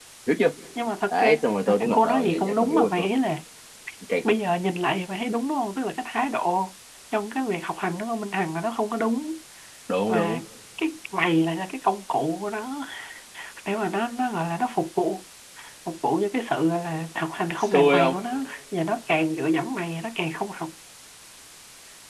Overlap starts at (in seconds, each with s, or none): 1.1 s